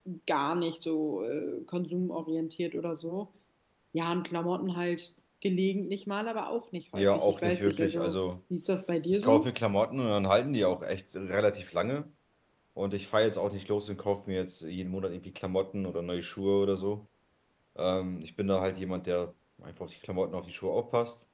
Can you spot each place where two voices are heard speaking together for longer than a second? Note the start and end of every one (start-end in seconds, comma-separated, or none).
6.9-8.2